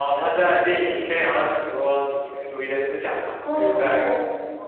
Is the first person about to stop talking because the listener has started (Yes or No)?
Yes